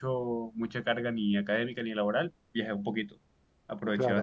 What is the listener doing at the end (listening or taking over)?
taking over